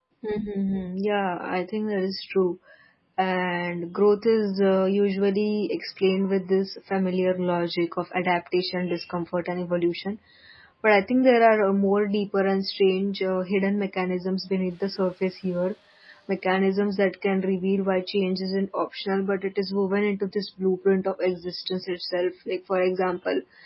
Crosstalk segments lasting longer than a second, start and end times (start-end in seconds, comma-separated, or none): none